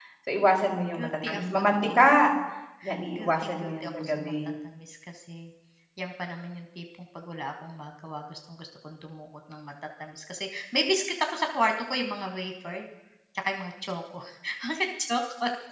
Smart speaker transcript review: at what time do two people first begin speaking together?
0.9 s

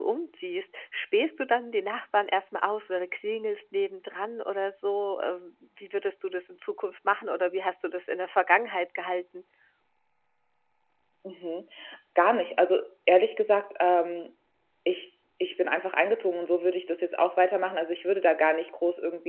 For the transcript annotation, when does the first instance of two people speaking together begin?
none

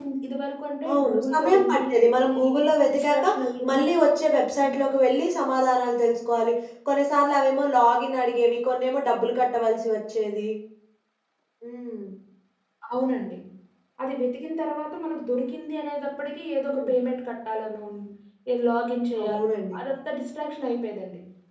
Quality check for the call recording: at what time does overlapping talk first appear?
0.9 s

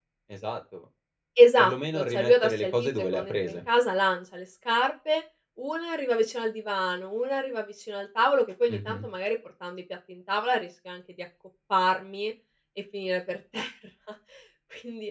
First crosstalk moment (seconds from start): 1.6 s

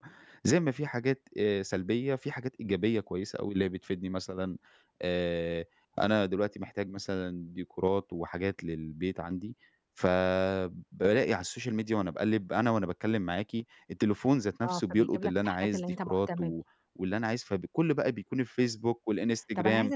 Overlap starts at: 14.6 s

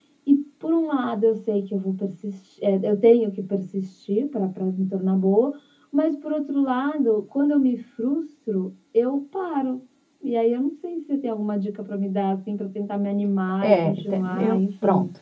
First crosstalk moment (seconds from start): 13.6 s

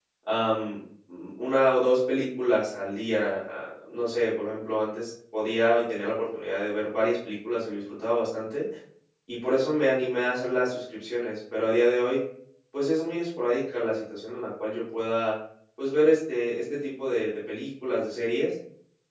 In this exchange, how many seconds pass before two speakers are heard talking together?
none

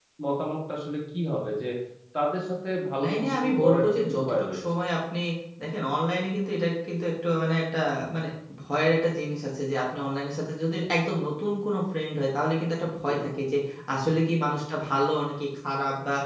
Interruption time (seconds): 2.9 s

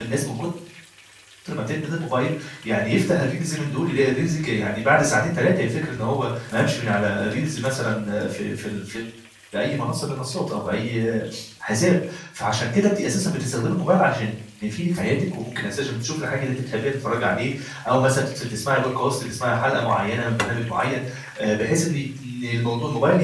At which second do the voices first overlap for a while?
none

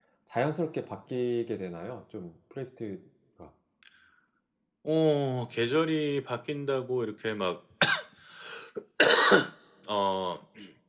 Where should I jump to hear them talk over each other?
none

